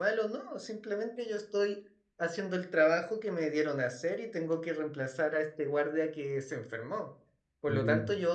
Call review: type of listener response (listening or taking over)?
listening